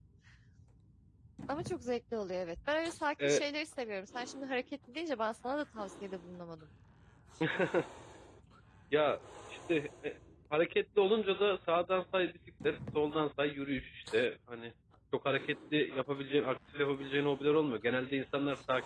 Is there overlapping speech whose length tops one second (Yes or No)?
No